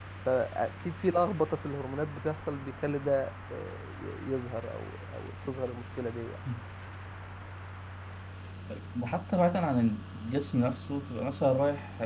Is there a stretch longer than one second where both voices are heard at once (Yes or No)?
No